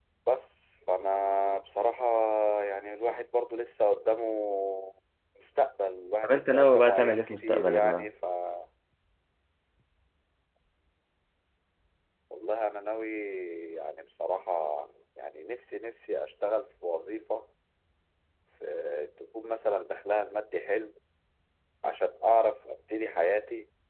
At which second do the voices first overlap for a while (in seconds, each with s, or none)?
6.2 s